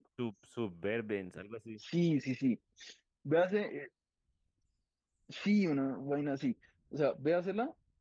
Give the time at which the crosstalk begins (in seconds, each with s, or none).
none